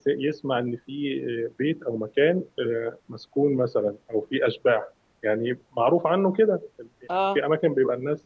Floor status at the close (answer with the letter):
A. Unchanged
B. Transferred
A